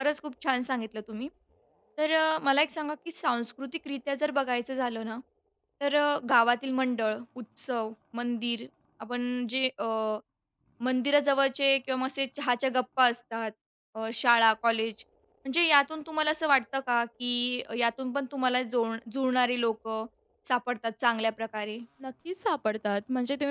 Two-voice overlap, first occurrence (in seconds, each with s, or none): none